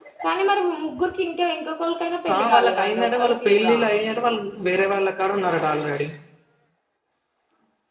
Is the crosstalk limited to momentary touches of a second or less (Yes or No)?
No